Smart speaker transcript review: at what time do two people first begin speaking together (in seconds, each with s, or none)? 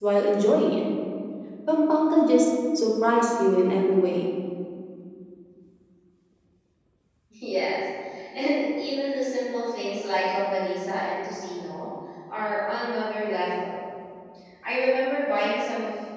none